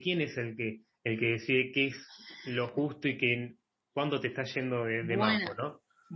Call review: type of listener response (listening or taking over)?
taking over